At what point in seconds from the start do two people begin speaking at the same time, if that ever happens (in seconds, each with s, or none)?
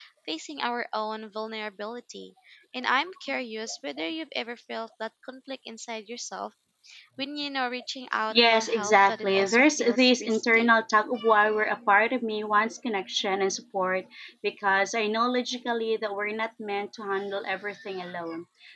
8.3 s